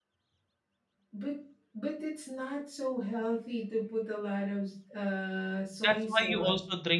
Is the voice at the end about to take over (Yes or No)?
Yes